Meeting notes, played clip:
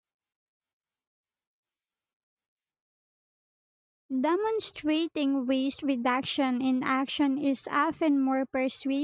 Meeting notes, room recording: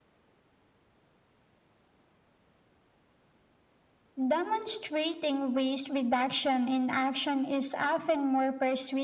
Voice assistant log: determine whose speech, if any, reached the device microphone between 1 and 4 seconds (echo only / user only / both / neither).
neither